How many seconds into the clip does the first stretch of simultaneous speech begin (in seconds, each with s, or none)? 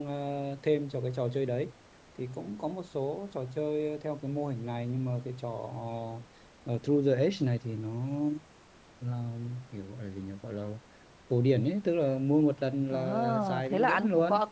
12.9 s